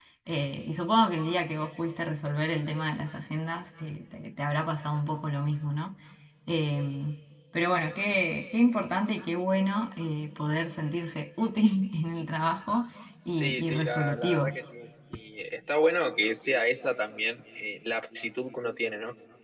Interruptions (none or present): present